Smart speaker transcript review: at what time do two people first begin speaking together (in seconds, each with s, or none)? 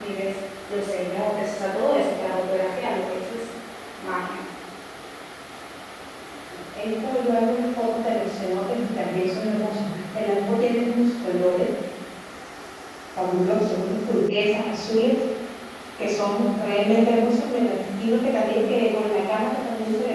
none